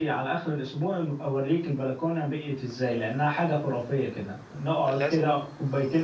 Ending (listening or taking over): listening